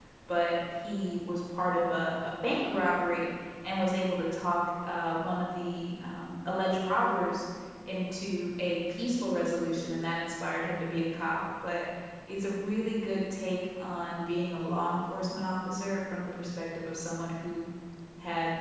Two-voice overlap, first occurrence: none

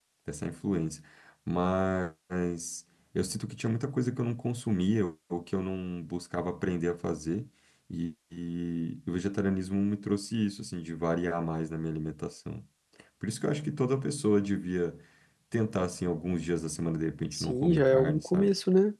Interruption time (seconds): 17.3 s

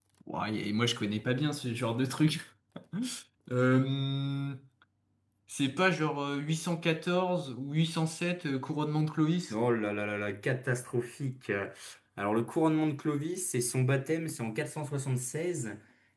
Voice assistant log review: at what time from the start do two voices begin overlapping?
none

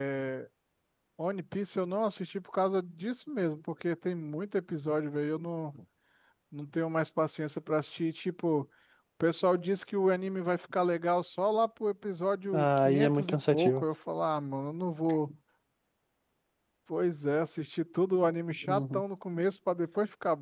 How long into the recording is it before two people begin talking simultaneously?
12.5 s

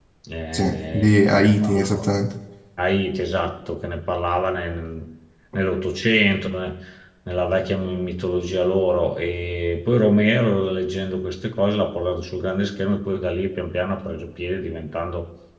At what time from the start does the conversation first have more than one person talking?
0.5 s

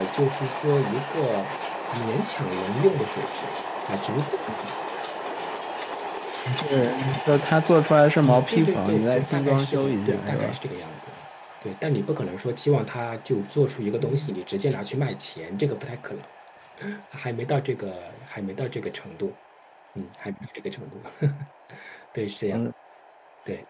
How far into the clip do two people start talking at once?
8.2 s

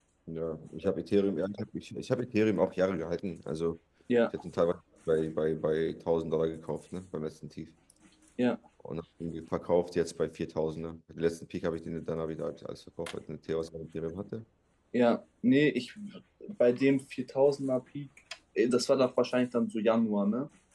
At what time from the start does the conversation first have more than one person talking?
none

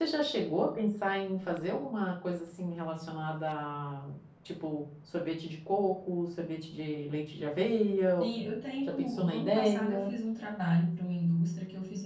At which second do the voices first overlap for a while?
8.9 s

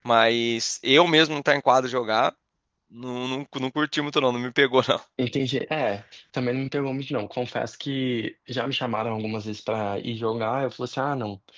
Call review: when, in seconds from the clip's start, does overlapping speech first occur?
none

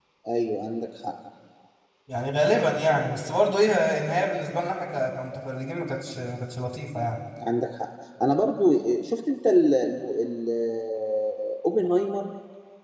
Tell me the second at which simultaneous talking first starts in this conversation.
none

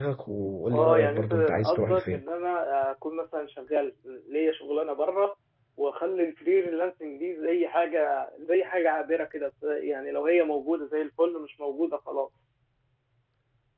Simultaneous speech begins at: 0.7 s

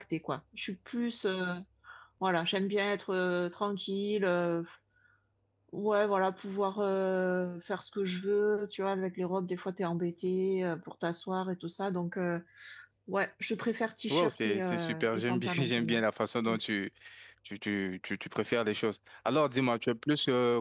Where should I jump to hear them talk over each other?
14.1 s

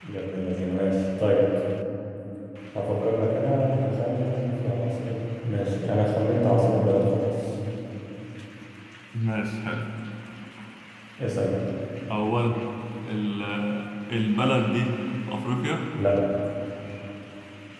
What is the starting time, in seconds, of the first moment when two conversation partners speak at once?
none

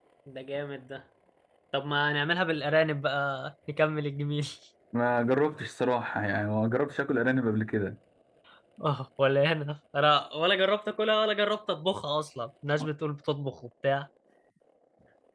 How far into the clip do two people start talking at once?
none

